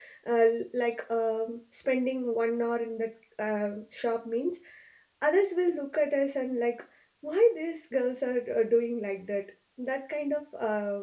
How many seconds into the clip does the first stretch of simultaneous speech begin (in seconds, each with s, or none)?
none